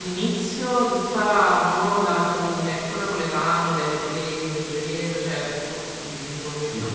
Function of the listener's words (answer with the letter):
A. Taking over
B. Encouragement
B